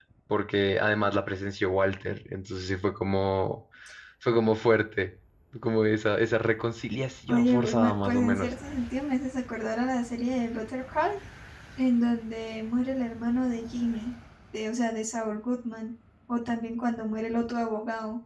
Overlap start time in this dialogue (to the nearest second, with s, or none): 7 s